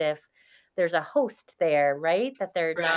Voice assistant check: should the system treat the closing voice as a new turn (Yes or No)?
Yes